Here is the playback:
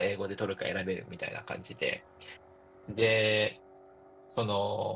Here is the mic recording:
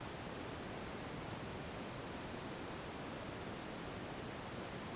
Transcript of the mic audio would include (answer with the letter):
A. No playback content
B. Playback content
A